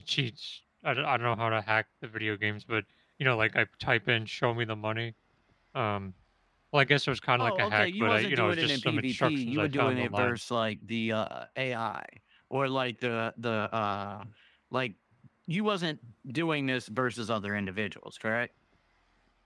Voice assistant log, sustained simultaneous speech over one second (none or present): present